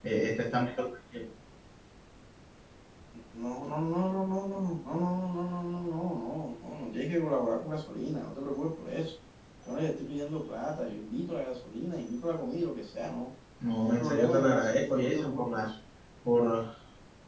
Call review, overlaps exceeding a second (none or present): present